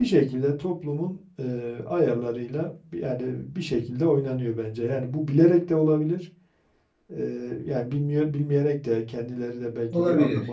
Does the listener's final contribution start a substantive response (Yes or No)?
No